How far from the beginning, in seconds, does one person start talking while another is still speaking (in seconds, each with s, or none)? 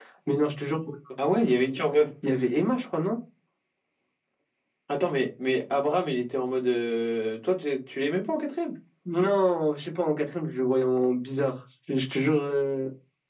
none